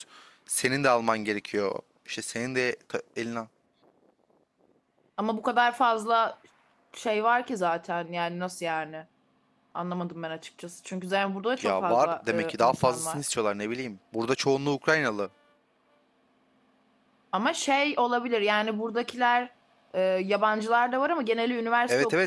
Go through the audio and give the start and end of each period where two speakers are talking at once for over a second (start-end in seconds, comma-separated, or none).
11.6-13.2